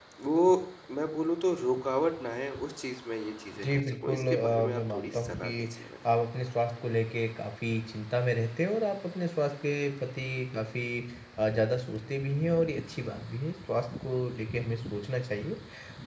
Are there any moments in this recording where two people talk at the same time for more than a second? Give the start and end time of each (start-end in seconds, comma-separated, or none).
3.6-5.7